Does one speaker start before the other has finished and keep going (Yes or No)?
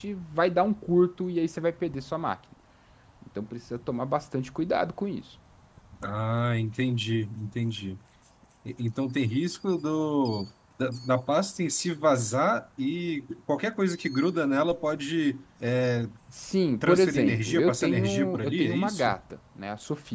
Yes